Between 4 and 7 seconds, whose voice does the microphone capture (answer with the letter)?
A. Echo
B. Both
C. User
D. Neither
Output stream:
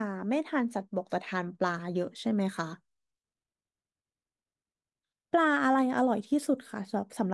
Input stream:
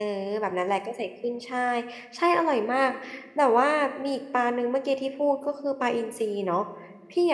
C